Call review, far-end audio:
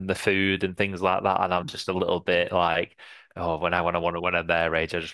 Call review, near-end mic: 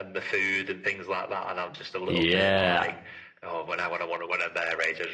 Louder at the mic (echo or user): user